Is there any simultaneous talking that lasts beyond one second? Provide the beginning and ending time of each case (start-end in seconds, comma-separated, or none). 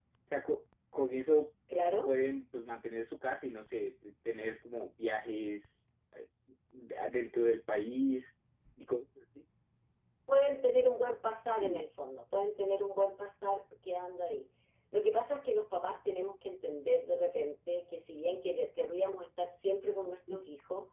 none